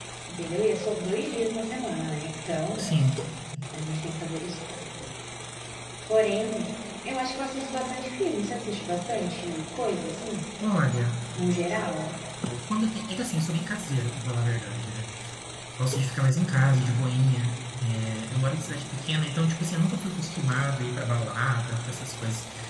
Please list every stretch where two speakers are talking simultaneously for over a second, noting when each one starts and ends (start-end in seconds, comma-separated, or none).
none